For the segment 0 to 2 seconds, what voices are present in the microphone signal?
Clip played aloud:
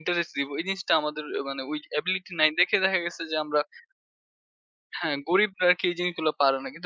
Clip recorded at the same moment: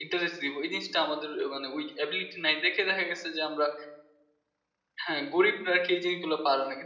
echo only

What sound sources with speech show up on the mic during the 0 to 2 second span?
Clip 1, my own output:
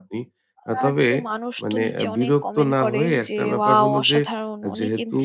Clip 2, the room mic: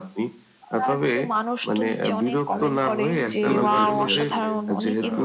echo only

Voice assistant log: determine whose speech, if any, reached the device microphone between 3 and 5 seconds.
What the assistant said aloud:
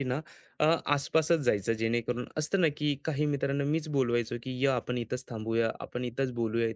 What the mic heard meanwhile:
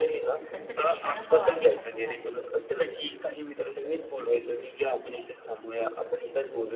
echo only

